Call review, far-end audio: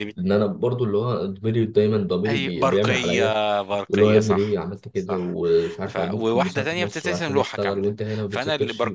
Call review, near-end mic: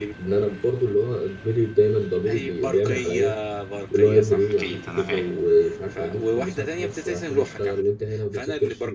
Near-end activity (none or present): present